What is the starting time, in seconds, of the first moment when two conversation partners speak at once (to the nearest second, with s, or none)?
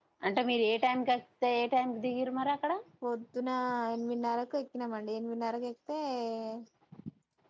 none